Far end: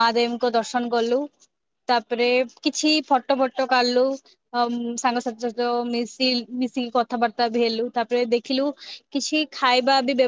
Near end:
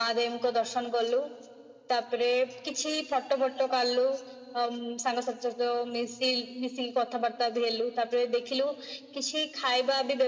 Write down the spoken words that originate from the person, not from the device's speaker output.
none

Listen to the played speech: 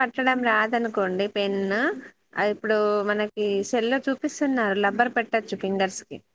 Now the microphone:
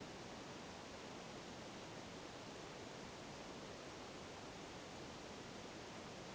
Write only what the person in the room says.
none

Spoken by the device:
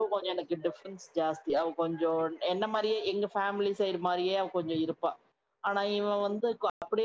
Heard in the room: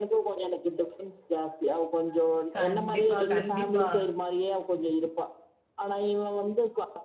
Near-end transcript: கண்டிப்பா கண்டிப்பா

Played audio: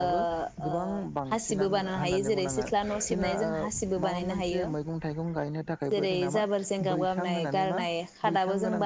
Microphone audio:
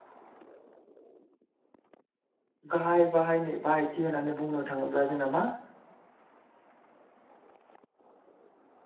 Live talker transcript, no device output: गाहाय बाहायनो बाहायथि होननानै बुंनो थाङोब्ला जोंना मा

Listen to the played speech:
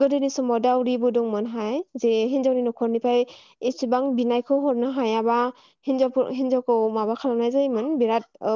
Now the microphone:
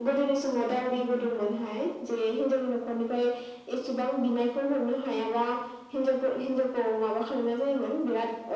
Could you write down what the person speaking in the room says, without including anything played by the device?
none

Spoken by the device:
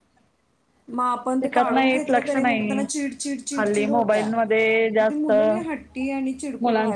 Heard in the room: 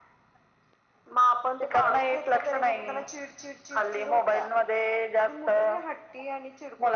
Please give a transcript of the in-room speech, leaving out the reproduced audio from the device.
none

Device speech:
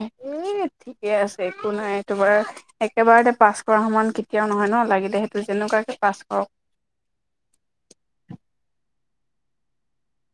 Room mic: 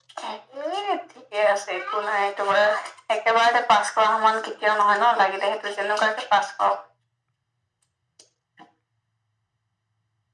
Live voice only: none

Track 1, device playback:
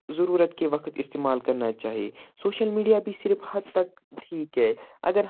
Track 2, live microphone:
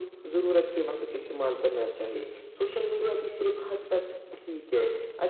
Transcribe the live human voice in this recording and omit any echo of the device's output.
none

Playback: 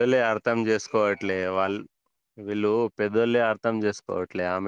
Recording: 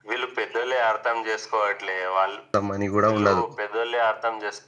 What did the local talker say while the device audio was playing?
అ మనీ కూడా ఉండదు

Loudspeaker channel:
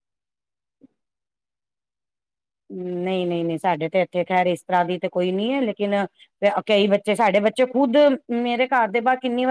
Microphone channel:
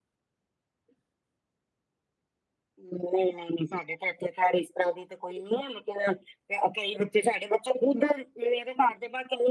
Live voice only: none

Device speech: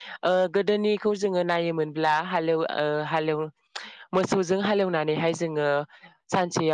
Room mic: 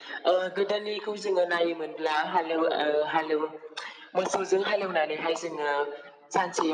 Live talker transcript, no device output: औ औ

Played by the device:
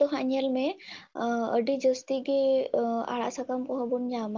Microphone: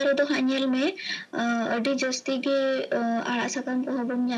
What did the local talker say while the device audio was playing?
none

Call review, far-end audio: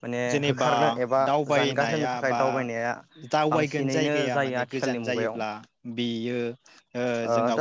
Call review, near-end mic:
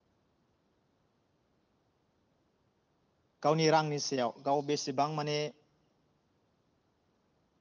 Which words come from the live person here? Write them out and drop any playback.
गावनि रांनि सेयाव गाव बेसेबां माने

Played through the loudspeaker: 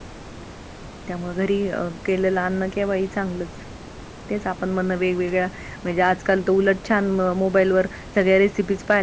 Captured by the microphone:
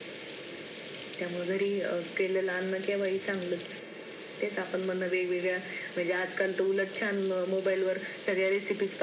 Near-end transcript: none

